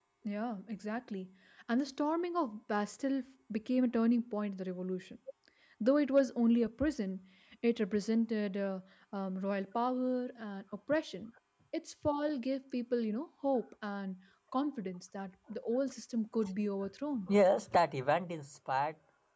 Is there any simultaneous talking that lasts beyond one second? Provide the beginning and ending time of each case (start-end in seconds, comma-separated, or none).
none